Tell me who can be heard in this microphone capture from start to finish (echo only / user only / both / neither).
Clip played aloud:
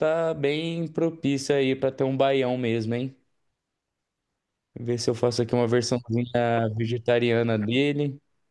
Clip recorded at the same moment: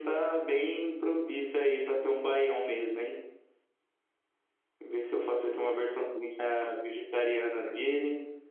echo only